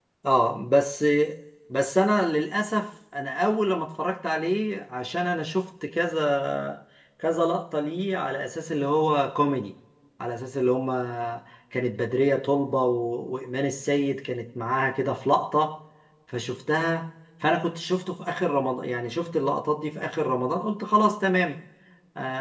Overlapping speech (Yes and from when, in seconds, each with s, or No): No